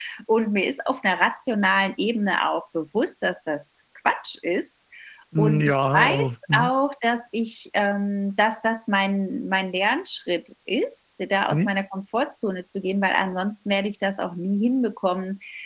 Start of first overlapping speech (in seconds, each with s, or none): 5.4 s